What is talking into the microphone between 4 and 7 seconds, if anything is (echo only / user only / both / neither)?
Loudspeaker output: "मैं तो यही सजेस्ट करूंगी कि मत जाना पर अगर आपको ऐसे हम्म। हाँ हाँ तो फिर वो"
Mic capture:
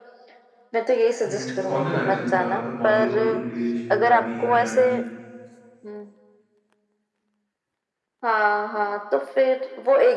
both